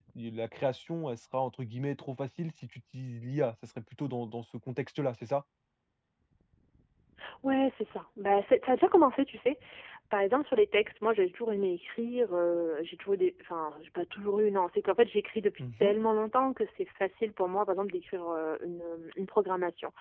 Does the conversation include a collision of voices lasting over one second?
No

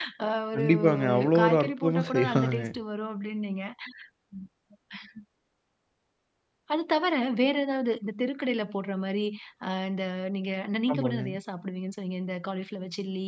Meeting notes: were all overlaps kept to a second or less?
No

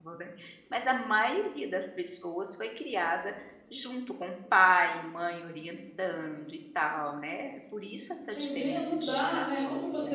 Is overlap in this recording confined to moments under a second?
No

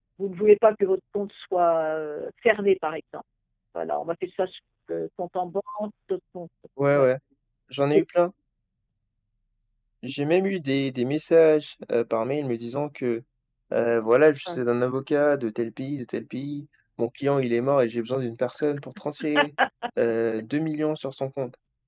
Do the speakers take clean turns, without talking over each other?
Yes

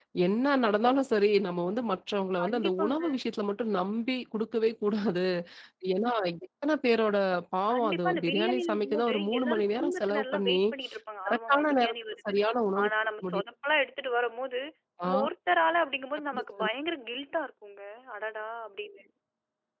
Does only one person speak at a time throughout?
No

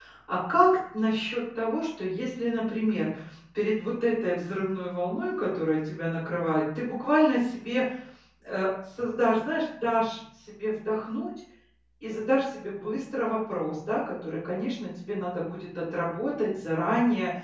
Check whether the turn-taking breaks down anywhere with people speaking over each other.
No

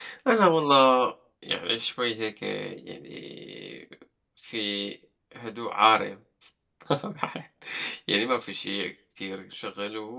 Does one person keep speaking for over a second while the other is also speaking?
No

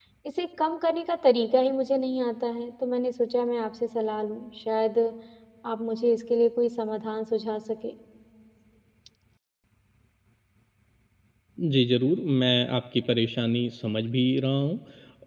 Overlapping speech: No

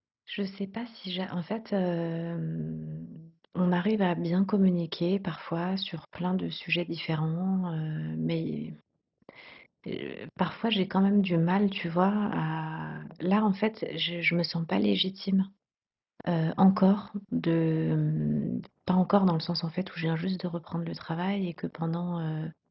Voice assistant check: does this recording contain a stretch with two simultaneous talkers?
No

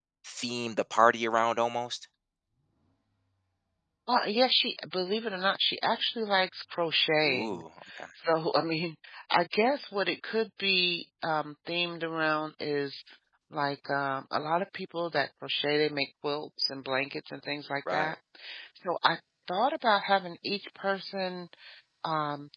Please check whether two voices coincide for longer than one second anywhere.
No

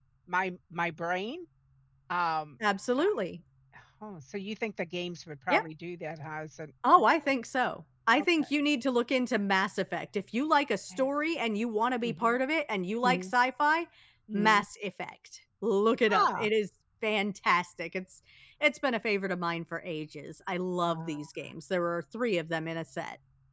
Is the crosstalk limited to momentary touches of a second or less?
Yes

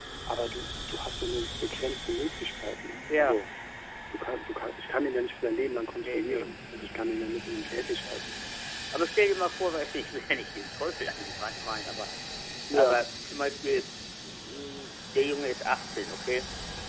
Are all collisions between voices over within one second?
Yes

